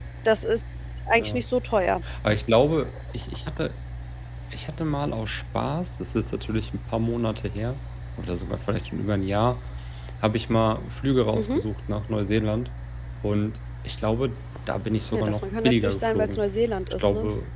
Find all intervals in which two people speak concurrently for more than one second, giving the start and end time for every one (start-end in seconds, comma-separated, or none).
15.1-16.4